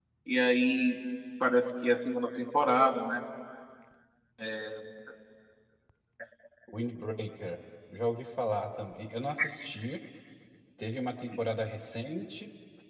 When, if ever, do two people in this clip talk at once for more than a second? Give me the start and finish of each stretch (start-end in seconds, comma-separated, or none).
none